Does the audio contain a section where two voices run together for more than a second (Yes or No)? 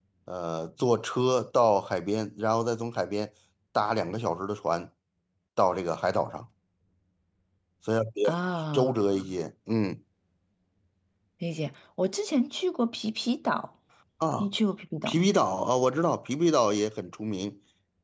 No